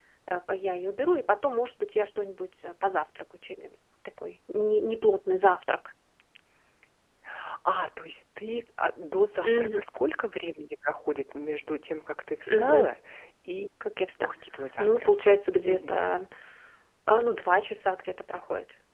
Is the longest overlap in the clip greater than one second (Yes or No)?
No